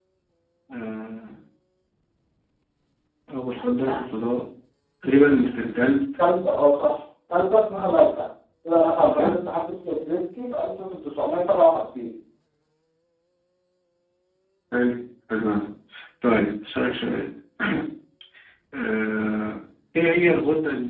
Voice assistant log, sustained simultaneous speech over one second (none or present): none